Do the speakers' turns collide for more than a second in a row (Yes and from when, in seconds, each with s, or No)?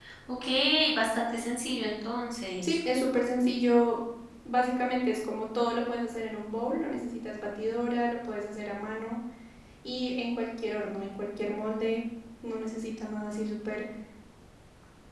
No